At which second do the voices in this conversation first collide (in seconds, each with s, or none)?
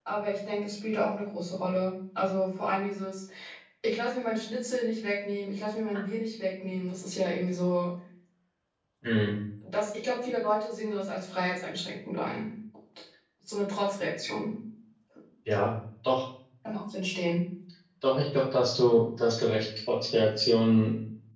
none